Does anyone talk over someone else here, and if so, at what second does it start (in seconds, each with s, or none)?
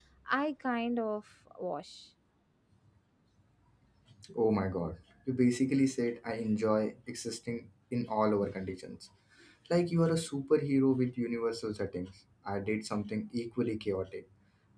none